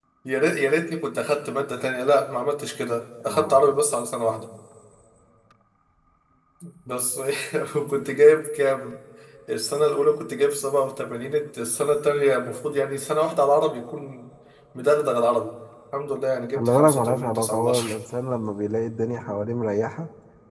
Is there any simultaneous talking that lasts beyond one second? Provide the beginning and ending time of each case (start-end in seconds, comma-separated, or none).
16.6-18.0